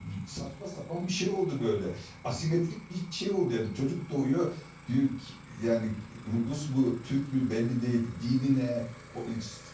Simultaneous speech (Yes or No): No